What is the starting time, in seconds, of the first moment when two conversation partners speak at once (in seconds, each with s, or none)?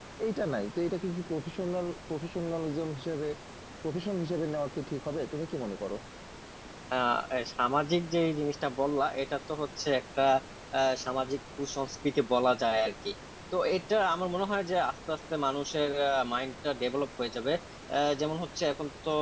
none